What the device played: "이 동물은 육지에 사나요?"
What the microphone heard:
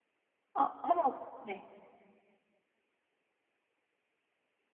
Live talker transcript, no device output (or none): 어, 어머, 네.